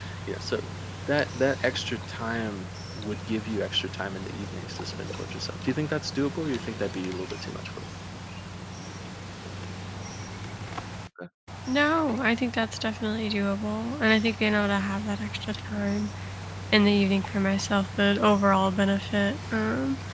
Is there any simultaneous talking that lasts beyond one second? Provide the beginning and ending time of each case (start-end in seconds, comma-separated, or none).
none